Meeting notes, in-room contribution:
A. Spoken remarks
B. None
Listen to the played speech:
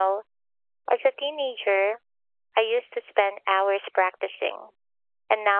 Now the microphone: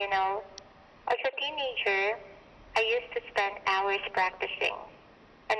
B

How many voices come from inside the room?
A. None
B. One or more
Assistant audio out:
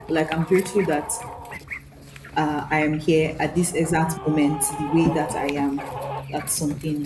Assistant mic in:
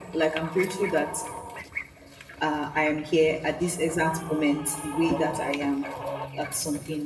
A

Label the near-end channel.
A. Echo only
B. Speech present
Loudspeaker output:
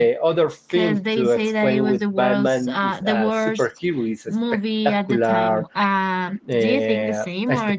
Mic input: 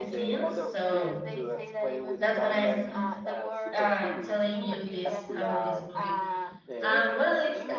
B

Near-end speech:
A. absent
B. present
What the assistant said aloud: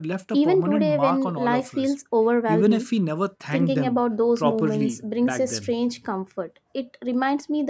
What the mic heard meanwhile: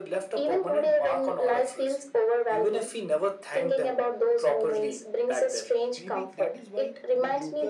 B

